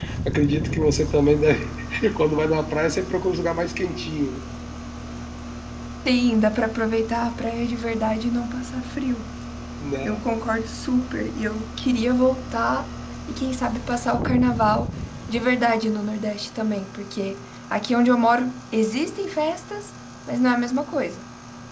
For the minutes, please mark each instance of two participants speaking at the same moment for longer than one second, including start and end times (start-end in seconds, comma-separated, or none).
none